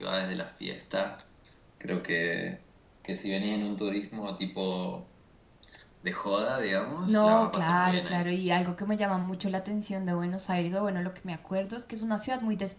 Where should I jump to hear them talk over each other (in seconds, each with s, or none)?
7.0 s